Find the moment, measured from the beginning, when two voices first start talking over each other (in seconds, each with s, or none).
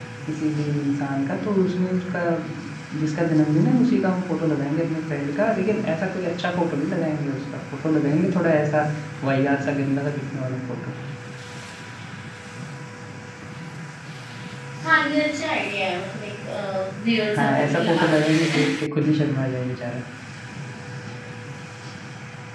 17.4 s